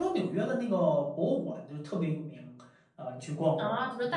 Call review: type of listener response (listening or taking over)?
taking over